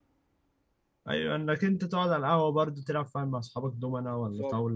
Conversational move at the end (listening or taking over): taking over